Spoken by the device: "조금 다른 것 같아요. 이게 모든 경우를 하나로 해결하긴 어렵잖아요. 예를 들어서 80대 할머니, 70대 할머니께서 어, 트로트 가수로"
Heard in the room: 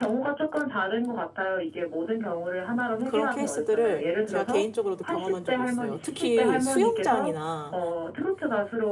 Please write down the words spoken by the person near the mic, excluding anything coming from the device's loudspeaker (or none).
그런 케이스들을 제가 개인적으로도 경험한 적이 있어요. 특히 수영장이나,